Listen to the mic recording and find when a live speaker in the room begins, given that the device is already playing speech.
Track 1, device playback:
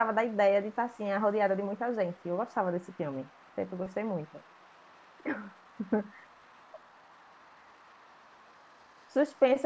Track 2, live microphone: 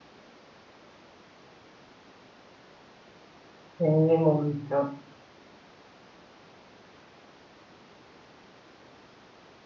4 s

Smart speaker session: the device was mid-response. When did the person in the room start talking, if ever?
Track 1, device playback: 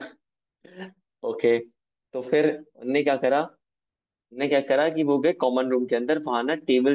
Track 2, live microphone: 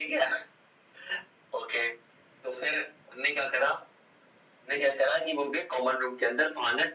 none

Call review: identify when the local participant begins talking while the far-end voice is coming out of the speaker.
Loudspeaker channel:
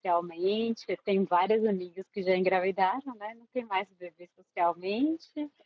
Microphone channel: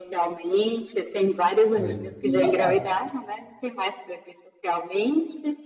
2 s

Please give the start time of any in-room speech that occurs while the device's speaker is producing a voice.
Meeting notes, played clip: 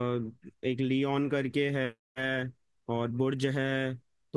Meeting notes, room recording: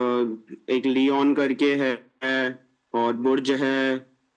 none

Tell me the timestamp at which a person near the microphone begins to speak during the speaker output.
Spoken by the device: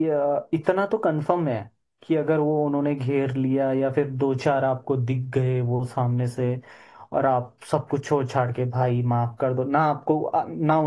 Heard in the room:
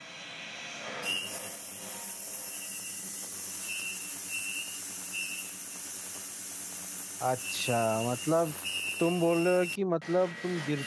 7 s

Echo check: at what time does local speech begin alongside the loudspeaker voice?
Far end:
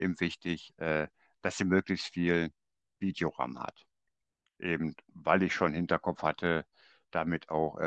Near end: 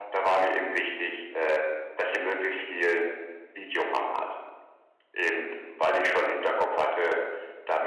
none

